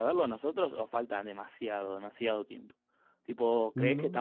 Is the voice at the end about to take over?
No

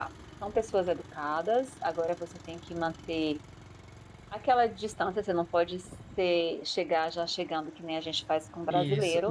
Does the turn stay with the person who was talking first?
No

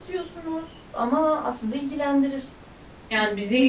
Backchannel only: No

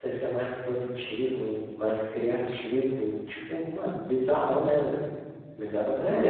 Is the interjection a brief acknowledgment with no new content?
No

